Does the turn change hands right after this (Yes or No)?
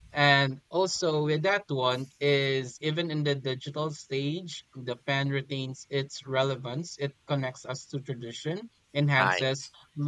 No